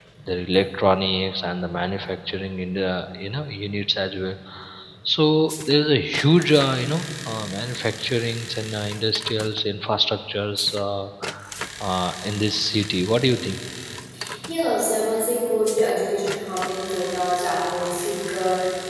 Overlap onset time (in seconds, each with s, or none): none